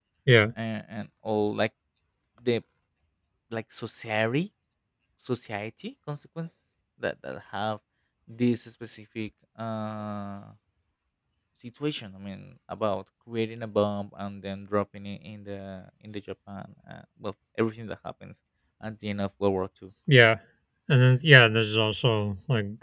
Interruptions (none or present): none